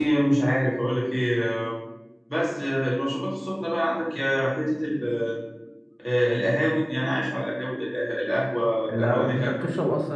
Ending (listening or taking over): taking over